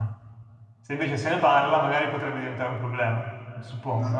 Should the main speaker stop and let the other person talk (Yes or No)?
Yes